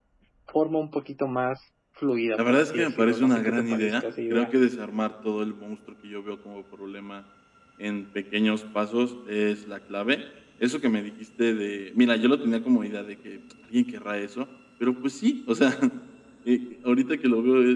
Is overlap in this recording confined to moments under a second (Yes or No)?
No